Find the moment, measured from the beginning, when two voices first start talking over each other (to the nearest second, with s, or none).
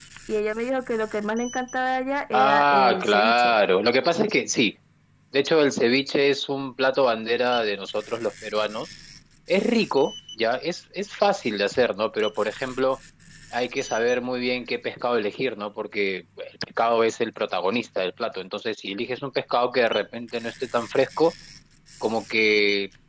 2 s